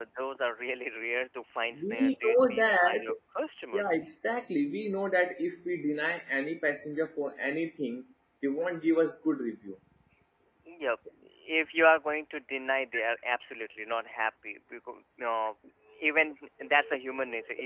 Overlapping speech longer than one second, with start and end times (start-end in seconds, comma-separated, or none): 1.8-3.0